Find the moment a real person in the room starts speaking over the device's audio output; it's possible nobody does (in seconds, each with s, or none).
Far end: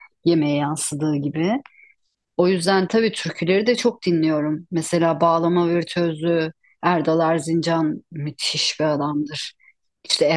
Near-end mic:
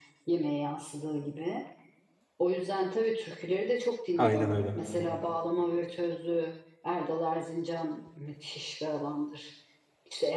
4.2 s